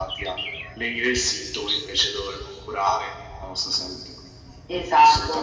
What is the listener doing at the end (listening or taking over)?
taking over